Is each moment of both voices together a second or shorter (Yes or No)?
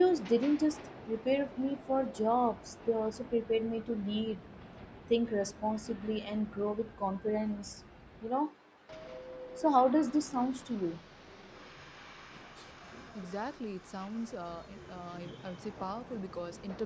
Yes